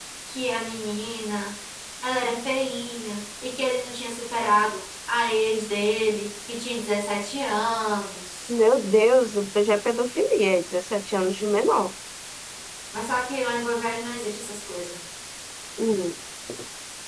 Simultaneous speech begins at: none

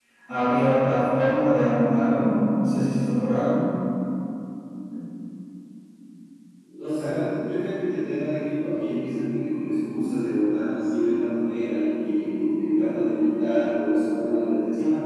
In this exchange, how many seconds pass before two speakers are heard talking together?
none

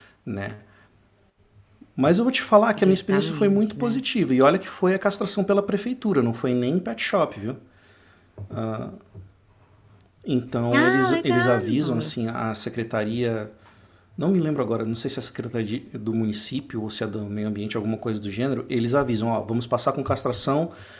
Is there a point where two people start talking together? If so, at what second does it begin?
3 s

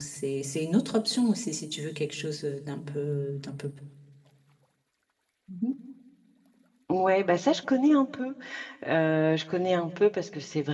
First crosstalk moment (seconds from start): none

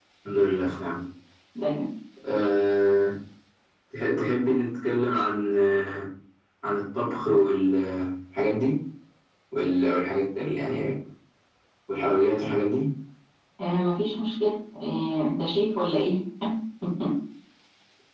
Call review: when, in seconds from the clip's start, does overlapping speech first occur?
none

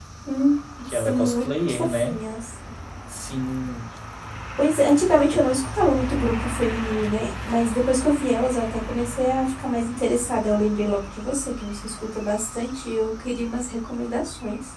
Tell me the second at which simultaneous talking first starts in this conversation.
1 s

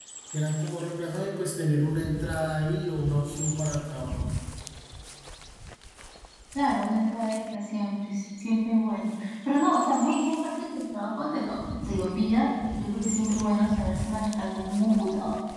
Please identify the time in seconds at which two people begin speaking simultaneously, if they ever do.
none

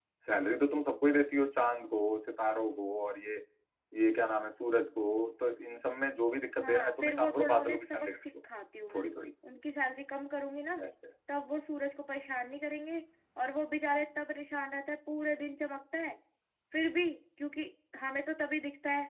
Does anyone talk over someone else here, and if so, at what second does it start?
7 s

